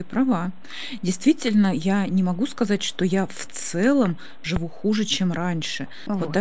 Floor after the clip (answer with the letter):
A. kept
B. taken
A